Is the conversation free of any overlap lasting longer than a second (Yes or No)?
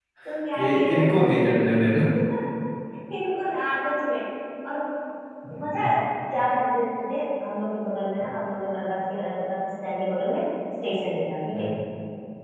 Yes